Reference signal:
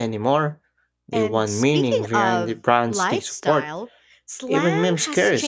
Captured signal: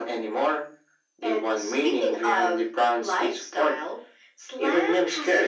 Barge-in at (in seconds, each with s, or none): none